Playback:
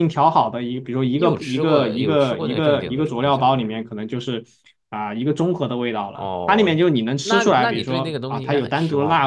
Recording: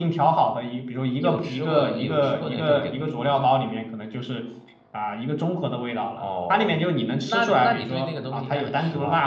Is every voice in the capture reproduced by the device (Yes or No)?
Yes